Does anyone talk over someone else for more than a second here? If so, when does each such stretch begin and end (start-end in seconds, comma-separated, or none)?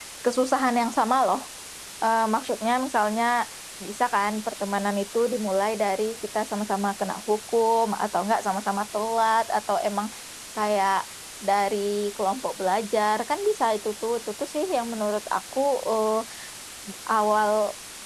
none